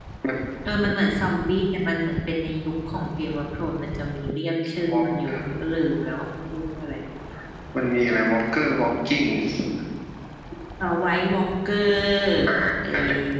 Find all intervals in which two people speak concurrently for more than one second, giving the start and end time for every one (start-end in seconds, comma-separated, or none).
none